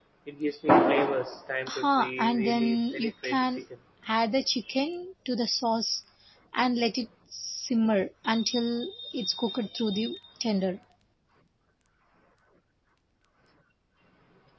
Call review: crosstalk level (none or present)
present